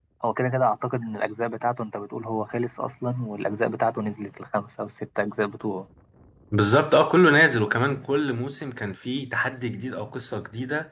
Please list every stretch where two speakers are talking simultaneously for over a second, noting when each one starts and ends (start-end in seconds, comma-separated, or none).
none